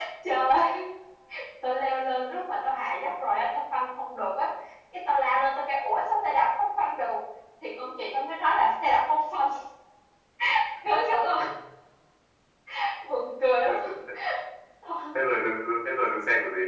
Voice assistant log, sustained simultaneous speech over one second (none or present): none